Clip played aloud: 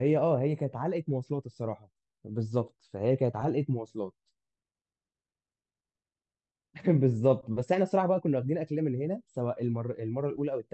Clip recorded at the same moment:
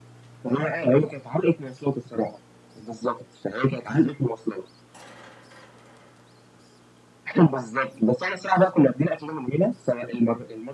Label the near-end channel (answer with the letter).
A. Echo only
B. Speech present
A